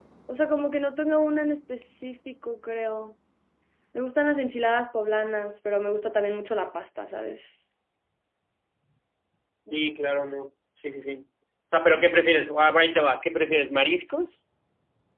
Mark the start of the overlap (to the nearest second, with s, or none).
none